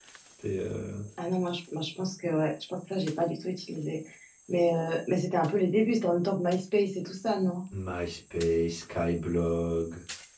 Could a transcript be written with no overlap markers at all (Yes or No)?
Yes